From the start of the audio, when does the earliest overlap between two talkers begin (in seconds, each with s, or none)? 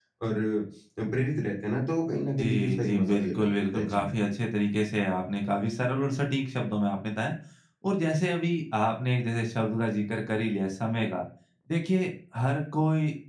2.4 s